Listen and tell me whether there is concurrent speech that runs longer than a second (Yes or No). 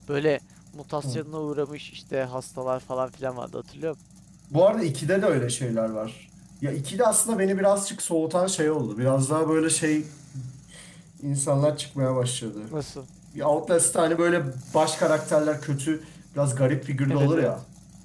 No